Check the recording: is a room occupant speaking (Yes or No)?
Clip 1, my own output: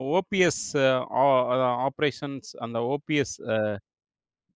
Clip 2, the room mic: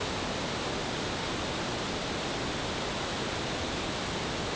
No